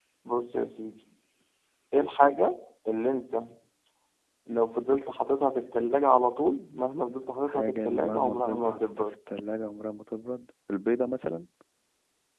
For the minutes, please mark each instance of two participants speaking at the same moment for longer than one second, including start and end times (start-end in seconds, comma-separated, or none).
7.4-9.2